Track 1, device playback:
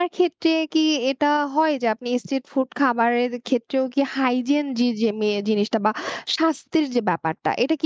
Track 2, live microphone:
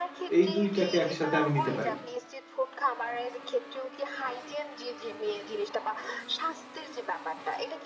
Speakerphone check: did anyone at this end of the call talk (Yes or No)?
Yes